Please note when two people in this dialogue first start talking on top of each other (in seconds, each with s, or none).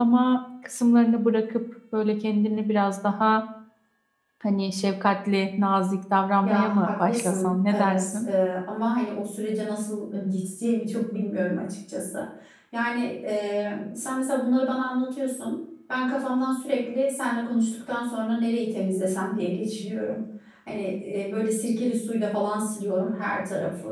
6.4 s